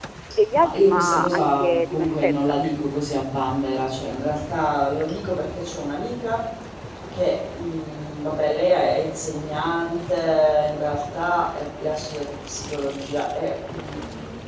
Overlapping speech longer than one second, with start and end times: 0.6-2.6

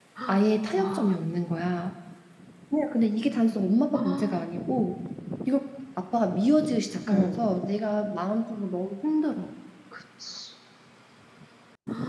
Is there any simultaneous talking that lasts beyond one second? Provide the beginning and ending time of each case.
none

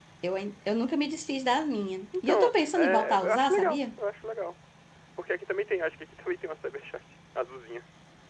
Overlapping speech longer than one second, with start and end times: 2.3-3.8

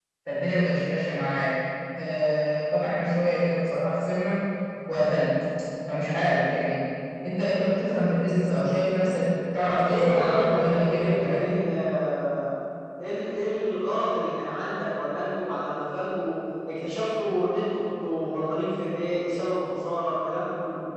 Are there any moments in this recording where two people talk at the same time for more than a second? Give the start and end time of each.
9.7-11.6

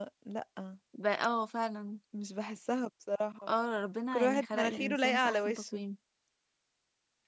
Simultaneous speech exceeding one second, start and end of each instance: 4.1-5.8

